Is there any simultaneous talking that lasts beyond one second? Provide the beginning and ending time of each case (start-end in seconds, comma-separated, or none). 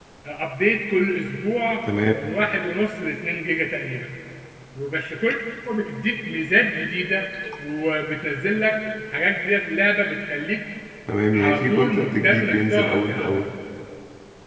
11.3-13.4